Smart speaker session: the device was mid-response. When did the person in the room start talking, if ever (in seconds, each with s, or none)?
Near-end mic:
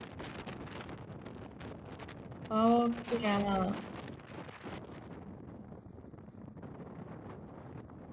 2.5 s